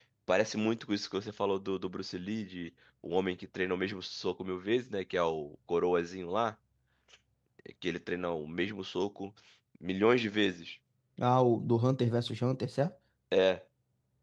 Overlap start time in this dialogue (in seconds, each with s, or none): none